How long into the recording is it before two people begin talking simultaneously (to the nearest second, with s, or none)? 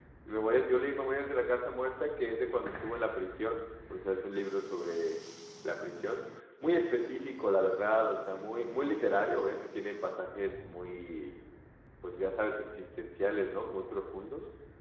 none